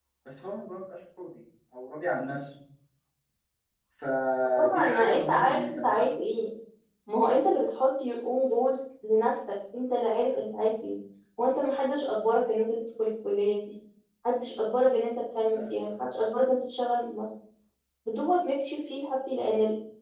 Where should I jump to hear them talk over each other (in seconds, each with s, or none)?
4.6 s